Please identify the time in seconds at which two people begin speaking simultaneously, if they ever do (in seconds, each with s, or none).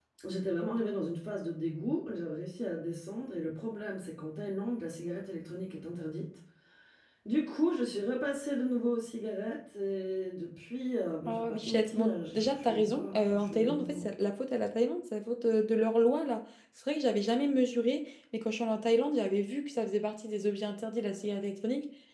11.3 s